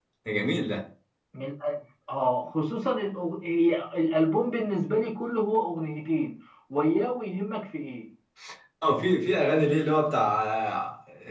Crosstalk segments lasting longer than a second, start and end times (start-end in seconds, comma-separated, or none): none